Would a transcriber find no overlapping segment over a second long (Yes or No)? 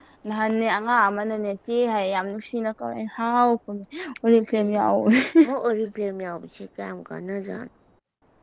Yes